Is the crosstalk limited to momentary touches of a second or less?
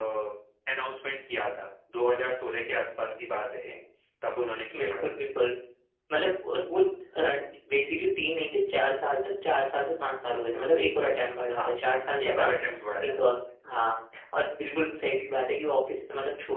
Yes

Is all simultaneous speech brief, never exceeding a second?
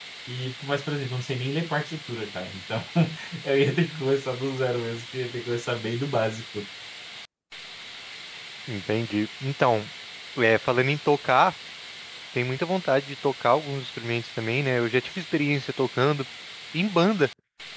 Yes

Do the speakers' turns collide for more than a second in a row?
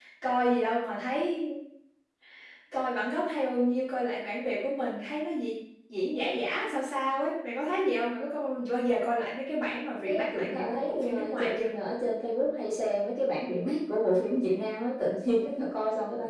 Yes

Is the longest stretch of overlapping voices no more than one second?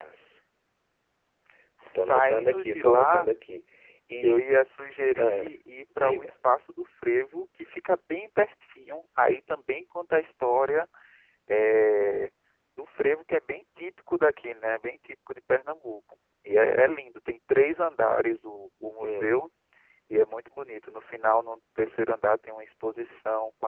No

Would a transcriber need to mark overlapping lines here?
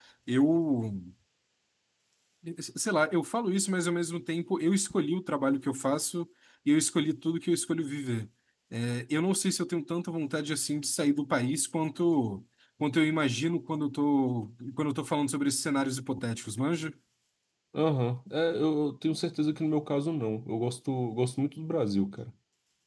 No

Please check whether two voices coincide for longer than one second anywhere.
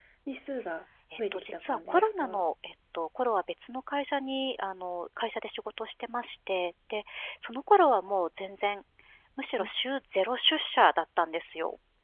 Yes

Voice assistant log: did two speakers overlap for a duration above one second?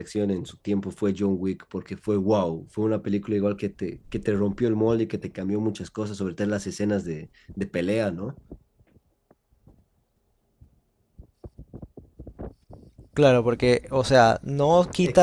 No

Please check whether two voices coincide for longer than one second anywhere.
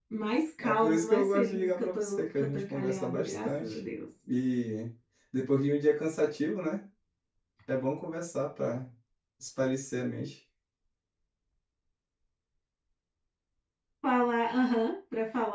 Yes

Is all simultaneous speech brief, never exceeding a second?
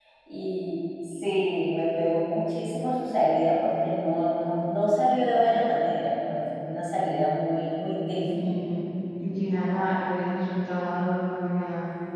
Yes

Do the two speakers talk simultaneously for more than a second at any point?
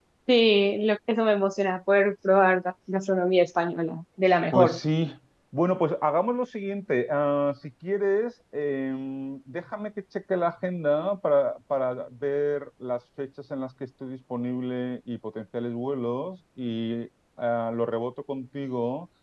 No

